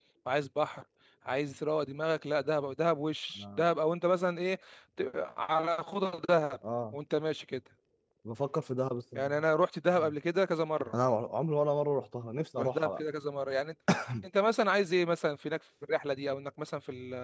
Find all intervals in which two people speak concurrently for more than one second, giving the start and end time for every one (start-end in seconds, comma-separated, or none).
none